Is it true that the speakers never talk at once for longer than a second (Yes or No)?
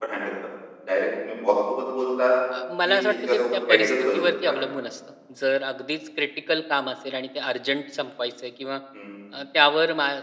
No